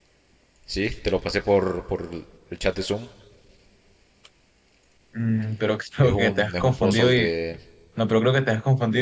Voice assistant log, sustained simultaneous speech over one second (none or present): present